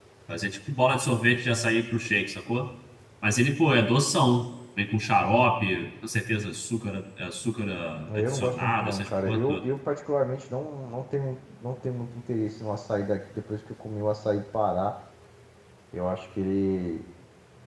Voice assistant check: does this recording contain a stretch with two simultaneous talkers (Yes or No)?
Yes